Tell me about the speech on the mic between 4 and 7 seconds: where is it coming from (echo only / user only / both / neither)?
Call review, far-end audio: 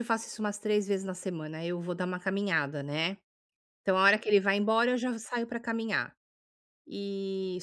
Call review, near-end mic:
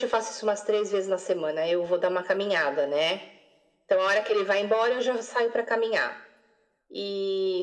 echo only